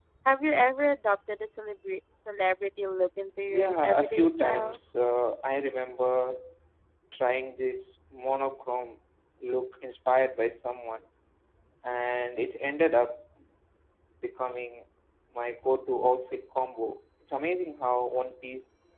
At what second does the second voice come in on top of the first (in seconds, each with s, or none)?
3.5 s